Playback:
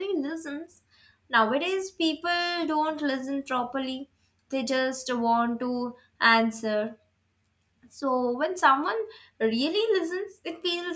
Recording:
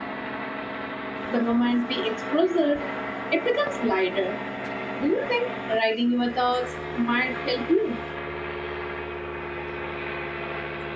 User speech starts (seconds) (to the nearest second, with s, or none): 1 s